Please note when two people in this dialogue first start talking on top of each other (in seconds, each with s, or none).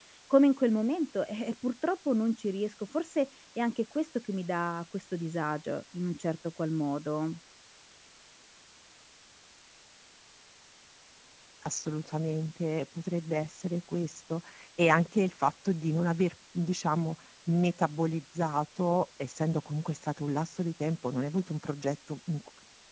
none